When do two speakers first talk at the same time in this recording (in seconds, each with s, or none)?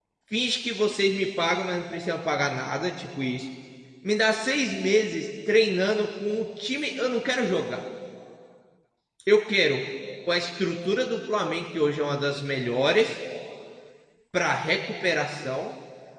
none